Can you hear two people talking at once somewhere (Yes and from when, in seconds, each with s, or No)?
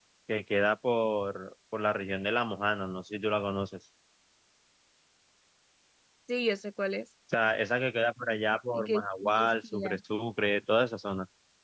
Yes, from 8.7 s